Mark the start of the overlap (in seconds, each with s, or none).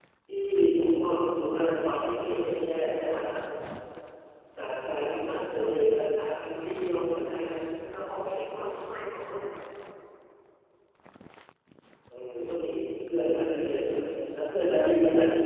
none